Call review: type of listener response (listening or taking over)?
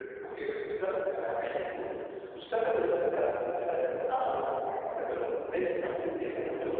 taking over